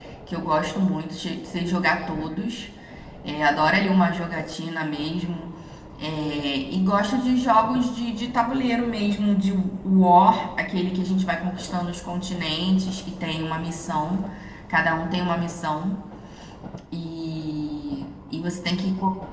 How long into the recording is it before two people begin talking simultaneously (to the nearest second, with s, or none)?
none